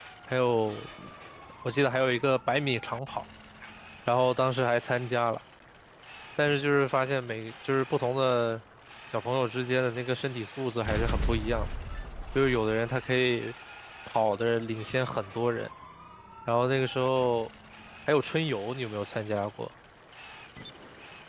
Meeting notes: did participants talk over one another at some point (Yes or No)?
No